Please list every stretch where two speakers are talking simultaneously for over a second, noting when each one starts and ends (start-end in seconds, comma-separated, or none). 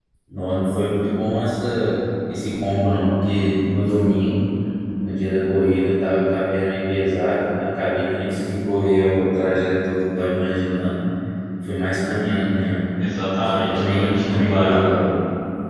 13.4-14.8